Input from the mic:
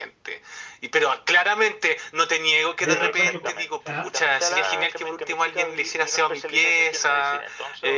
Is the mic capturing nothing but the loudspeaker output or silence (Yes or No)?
No